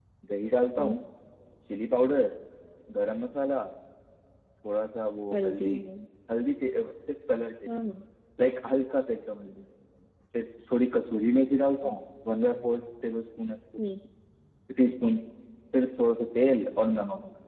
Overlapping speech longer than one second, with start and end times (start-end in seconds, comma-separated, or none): none